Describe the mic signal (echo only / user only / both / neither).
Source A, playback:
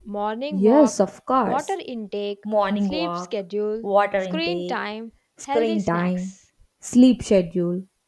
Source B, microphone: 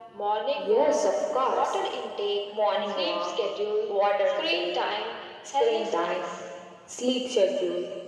echo only